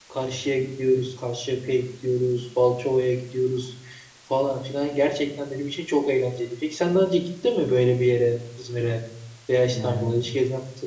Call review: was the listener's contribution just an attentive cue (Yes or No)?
Yes